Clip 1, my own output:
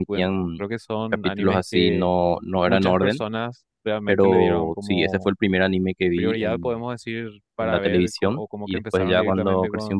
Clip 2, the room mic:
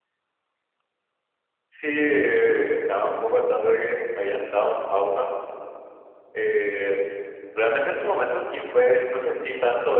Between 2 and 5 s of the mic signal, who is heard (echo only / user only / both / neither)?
user only